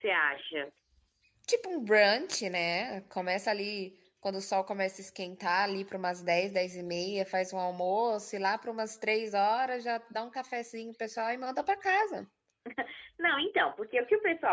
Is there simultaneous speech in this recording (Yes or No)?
No